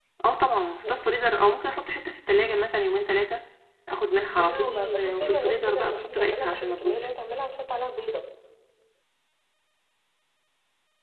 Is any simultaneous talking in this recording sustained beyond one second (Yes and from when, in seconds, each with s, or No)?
Yes, from 4.4 s